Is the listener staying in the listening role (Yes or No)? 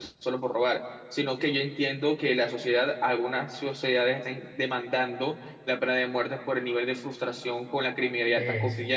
Yes